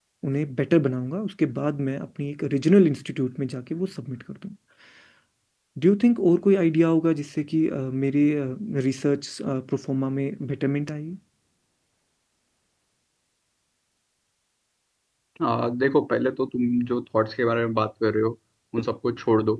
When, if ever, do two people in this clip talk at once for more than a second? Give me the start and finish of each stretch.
none

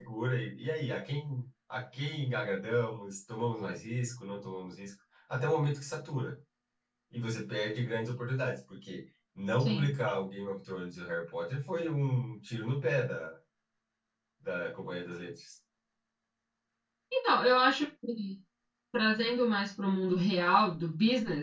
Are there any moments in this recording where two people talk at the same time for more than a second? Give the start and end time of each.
none

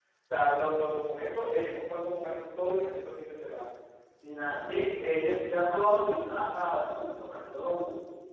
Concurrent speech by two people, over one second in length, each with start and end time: none

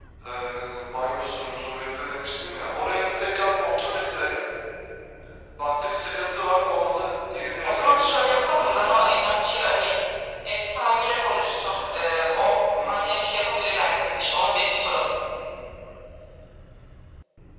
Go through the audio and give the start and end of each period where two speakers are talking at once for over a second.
7.6-9.0

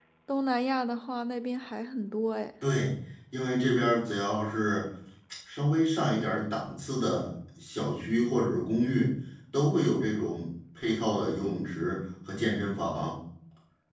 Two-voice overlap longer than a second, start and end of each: none

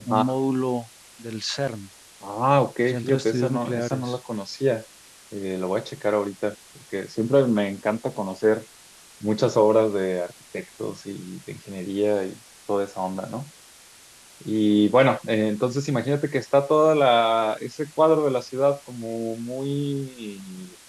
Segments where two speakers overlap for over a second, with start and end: 2.8-4.2

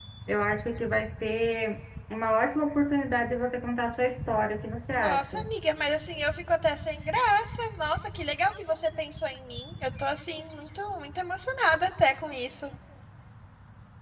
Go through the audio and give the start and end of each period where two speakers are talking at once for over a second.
none

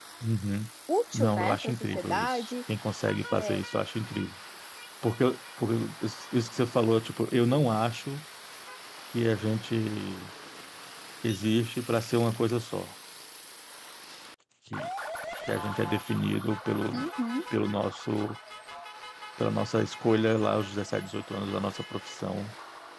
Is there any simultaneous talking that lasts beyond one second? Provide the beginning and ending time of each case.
1.1-2.5

